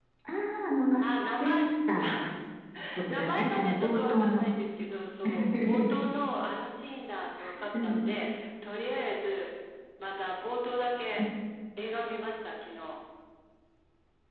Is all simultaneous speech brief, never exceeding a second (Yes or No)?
No